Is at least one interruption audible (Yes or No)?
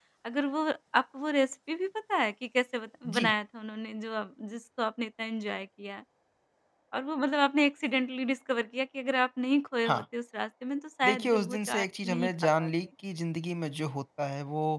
Yes